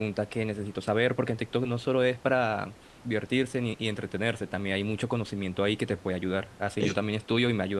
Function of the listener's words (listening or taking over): listening